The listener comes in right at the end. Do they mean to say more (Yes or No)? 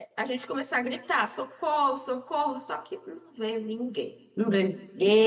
No